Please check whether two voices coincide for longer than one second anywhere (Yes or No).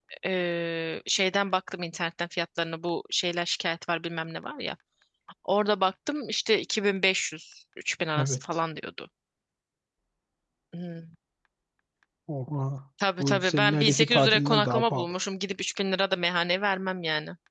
Yes